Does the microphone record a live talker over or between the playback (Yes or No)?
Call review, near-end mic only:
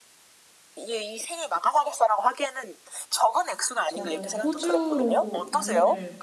Yes